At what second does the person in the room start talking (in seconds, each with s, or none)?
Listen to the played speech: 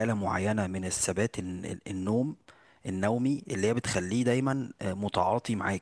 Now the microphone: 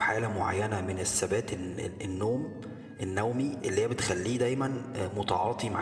none